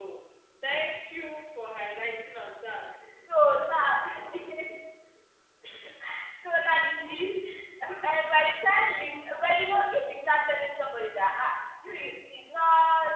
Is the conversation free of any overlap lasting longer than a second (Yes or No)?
Yes